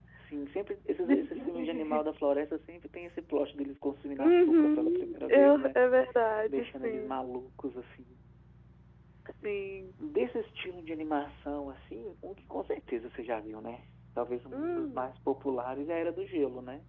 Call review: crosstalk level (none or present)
present